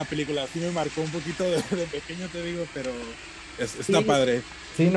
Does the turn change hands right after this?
Yes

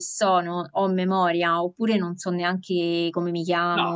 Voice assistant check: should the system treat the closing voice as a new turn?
Yes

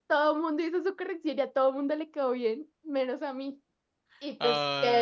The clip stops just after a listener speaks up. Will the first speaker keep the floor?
Yes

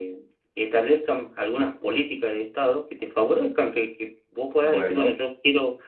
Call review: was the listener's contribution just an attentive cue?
Yes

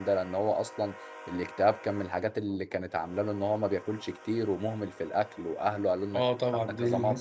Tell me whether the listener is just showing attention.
No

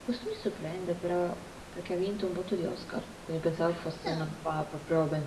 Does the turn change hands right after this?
No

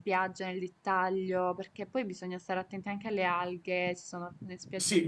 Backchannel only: No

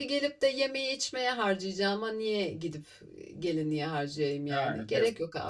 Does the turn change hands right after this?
Yes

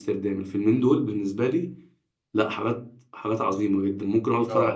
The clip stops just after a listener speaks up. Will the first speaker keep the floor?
No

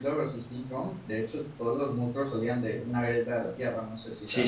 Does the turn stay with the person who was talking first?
No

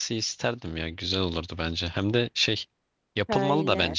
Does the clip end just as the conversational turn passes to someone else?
No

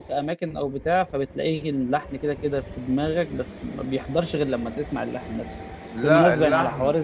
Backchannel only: Yes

